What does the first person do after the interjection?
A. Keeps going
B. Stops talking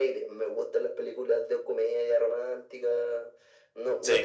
A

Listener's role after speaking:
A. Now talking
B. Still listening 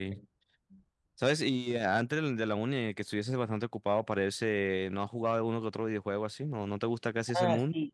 A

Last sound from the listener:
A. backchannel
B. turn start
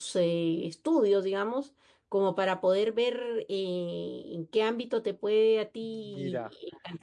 B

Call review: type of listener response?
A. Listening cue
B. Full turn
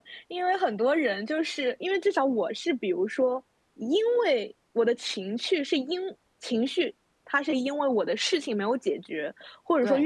A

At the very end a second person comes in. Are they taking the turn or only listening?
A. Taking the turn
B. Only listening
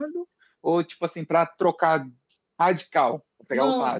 A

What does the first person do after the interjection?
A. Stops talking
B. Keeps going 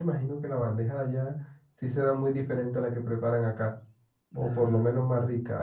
B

